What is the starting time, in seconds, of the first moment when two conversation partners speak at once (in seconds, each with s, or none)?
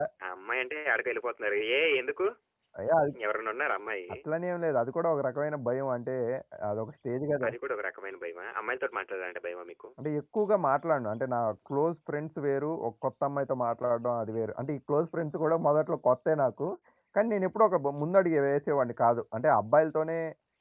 none